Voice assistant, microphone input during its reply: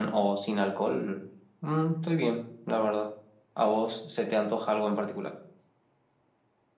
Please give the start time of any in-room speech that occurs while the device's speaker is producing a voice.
none

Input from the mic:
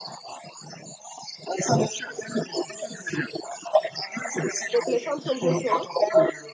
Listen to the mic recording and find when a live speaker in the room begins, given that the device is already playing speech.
4.7 s

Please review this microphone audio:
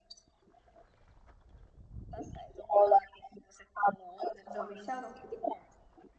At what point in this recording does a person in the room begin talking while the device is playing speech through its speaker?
4.5 s

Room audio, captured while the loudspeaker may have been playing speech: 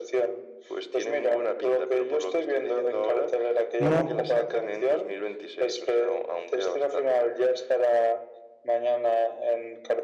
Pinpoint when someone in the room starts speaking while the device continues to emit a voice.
3.8 s

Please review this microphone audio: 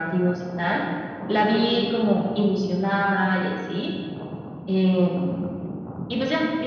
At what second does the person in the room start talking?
none

